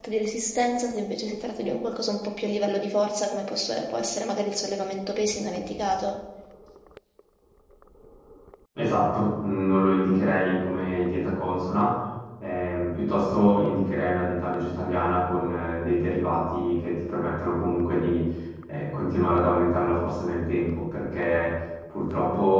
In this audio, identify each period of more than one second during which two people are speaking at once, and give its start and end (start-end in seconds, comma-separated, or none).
none